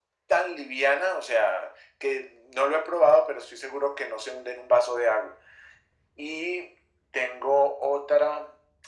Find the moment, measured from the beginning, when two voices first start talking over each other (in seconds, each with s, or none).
none